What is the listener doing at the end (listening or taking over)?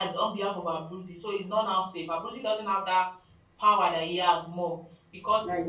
listening